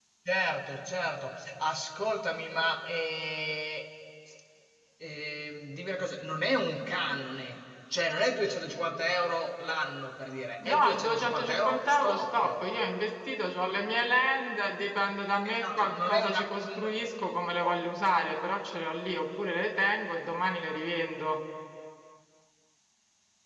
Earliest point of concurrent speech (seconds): 10.7 s

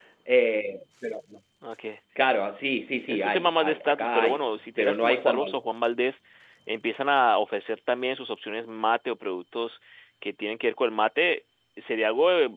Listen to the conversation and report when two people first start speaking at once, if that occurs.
3.1 s

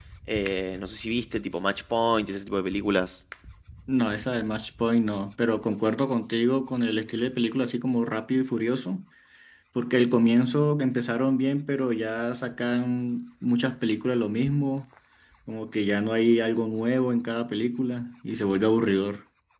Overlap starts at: none

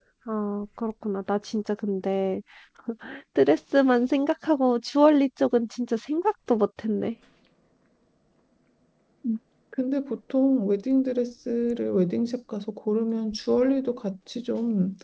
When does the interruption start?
none

